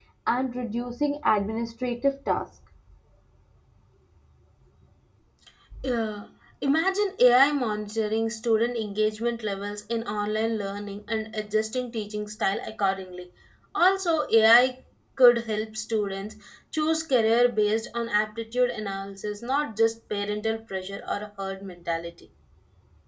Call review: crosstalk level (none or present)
none